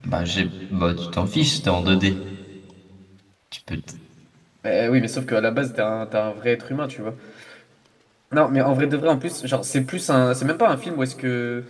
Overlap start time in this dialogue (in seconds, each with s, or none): none